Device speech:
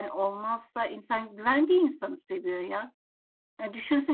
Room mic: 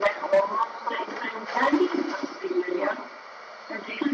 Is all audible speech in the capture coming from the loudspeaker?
Yes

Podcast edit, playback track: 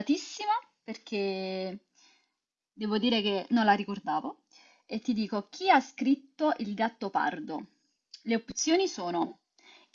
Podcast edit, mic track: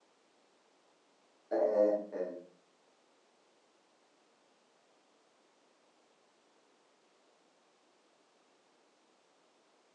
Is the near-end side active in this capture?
Yes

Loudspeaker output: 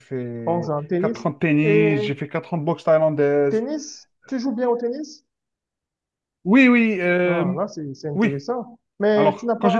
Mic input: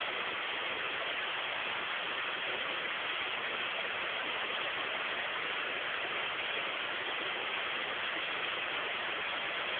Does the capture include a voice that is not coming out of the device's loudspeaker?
No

